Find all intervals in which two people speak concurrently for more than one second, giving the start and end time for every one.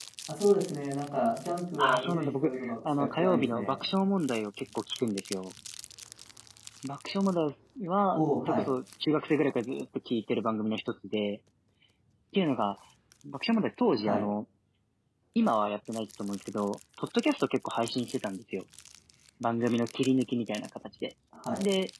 1.8-3.8

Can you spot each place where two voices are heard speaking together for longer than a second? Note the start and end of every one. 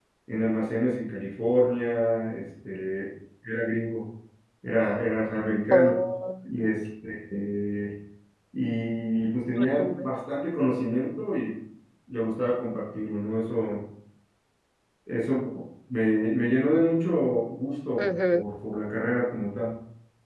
none

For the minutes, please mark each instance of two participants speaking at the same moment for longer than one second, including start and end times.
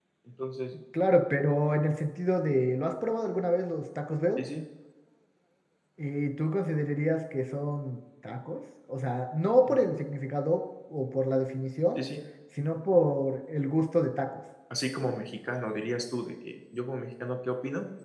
none

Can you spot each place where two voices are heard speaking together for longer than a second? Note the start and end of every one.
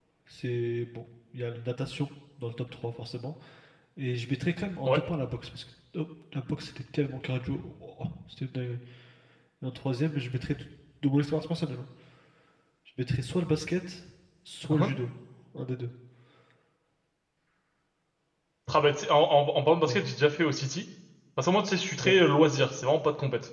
none

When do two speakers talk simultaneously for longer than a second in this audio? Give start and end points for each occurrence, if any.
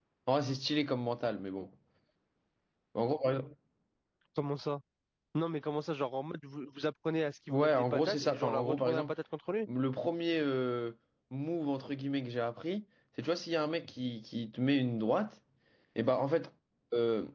7.5-9.1

